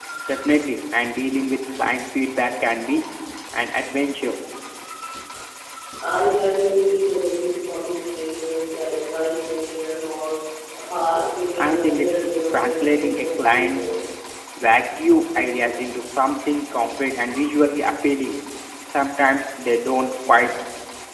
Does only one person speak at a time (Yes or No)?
No